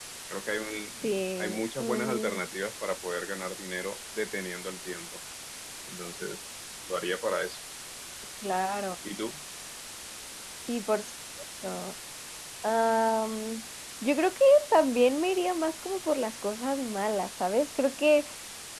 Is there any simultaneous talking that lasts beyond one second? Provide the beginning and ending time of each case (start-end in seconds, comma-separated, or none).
1.0-2.4